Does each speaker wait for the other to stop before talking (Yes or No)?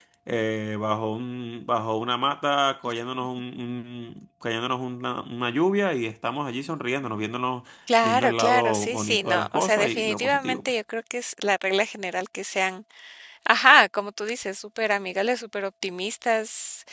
No